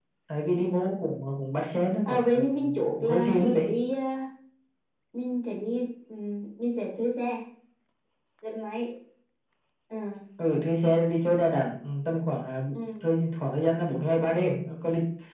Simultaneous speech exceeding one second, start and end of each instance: 2.0-3.7

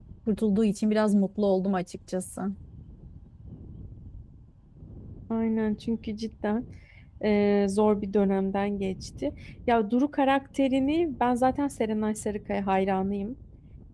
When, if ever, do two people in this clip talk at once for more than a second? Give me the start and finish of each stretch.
none

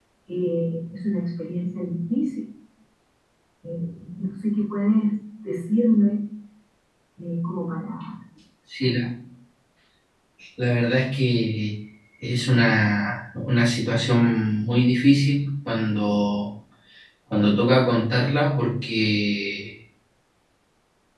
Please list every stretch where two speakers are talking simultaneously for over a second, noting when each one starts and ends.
none

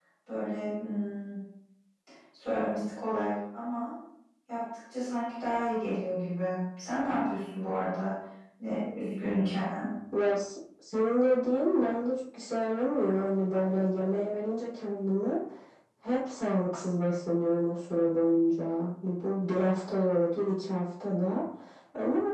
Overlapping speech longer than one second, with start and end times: none

